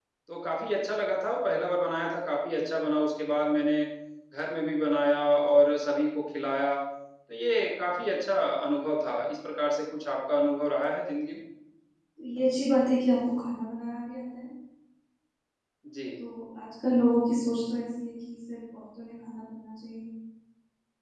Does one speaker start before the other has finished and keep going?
No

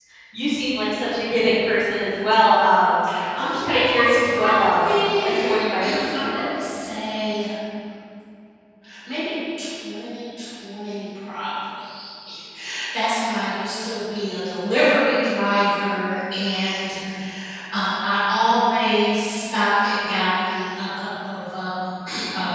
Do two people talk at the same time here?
Yes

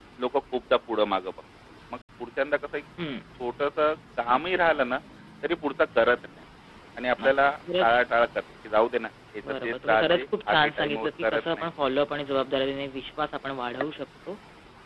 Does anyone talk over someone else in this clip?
Yes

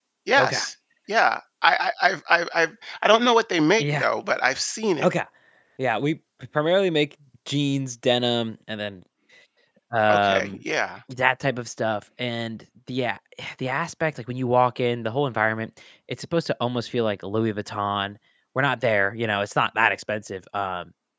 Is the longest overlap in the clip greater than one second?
No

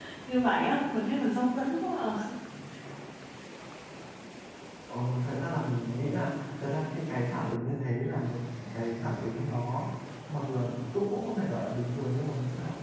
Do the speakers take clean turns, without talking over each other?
Yes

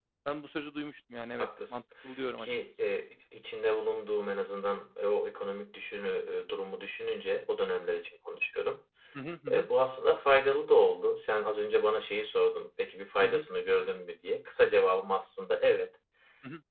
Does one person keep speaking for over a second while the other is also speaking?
No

